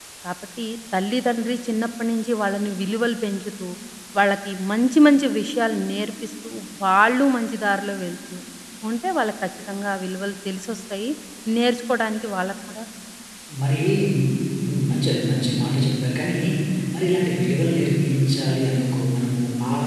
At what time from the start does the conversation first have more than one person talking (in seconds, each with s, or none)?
none